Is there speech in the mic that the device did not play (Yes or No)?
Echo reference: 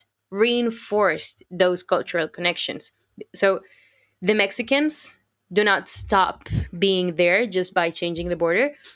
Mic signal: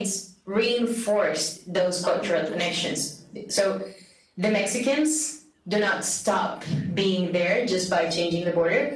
Yes